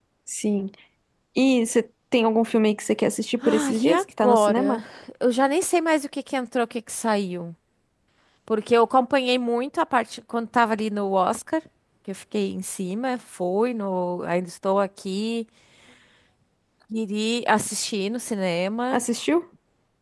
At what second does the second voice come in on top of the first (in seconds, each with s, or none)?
3.4 s